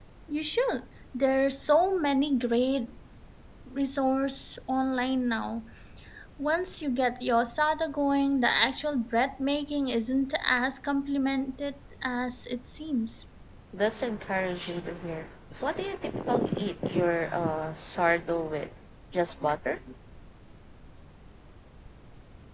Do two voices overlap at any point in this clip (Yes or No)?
No